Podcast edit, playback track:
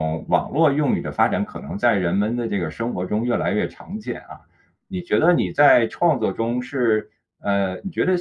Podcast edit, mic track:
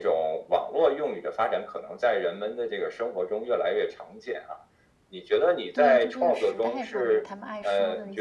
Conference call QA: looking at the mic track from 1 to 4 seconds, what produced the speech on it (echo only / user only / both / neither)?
echo only